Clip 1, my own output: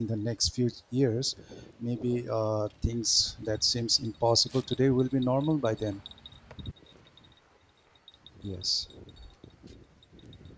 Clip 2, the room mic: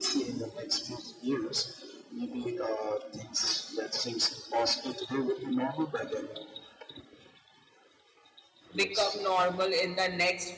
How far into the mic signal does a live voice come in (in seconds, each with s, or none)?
8.7 s